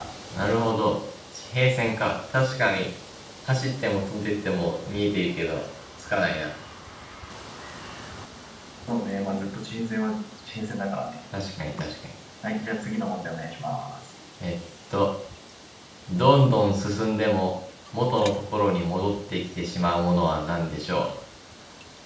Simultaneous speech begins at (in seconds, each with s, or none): none